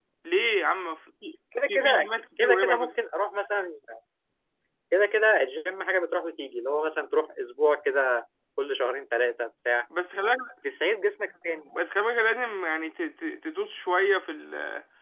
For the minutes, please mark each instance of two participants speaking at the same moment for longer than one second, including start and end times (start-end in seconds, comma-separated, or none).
1.7-2.9